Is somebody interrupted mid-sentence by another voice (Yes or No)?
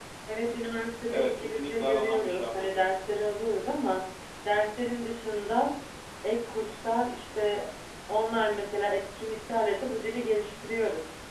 Yes